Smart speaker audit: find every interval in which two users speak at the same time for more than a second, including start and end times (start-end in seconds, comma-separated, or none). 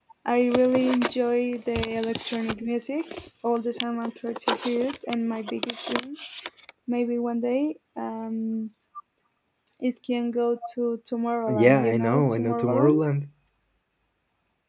11.5-12.9